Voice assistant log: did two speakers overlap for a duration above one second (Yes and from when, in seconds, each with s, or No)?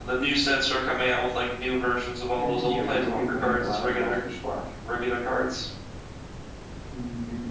Yes, from 2.3 s